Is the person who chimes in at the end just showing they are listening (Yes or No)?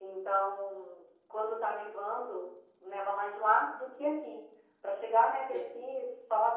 Yes